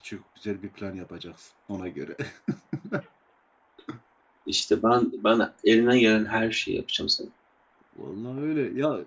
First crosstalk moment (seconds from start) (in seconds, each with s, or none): none